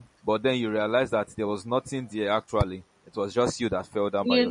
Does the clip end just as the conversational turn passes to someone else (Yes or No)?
Yes